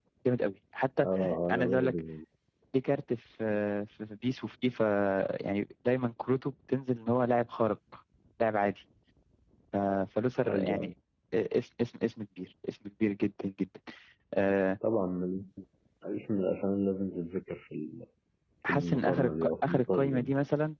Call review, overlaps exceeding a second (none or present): present